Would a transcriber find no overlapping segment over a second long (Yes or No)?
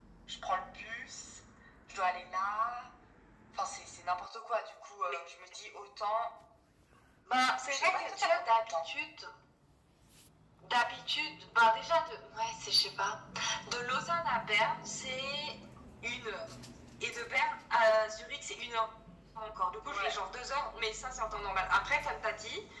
No